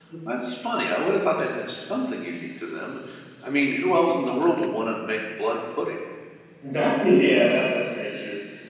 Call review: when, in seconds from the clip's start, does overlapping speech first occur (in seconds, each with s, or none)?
none